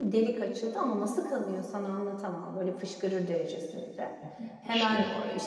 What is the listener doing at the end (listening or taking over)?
listening